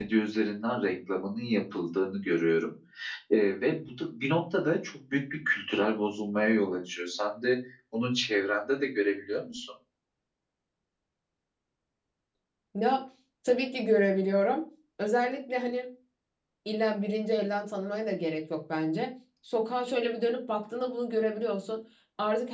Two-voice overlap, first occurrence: none

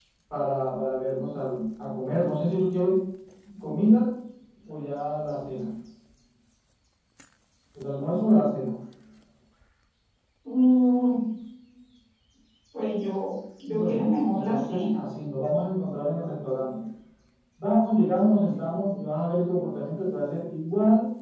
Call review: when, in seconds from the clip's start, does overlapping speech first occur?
13.7 s

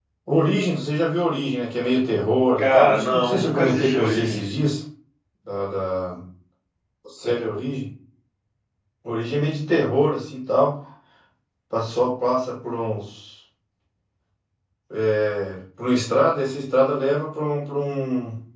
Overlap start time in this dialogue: 2.6 s

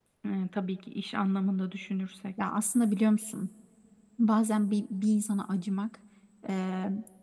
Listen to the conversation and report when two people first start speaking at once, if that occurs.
none

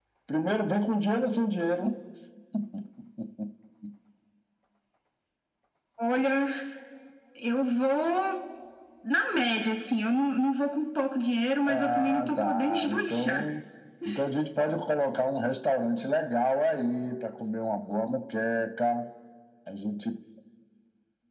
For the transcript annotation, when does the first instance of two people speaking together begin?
11.7 s

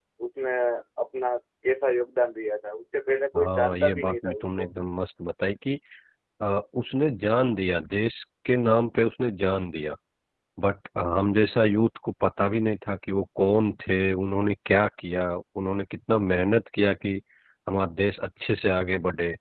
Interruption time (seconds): 3.4 s

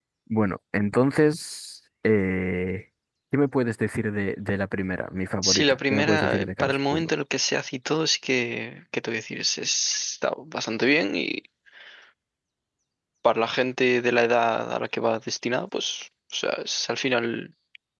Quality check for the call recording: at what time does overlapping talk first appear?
5.4 s

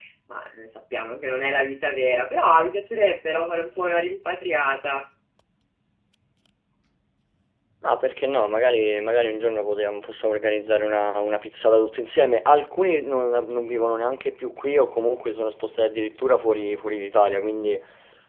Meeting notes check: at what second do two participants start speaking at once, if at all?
none

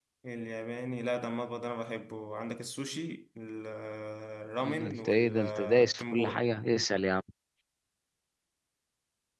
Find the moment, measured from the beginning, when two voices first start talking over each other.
4.8 s

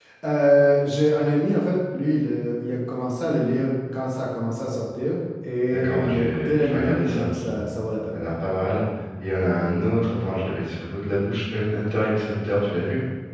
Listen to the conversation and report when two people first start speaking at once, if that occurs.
5.7 s

